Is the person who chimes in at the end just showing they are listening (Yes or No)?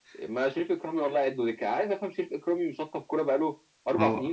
No